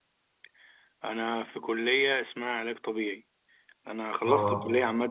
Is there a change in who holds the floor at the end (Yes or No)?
No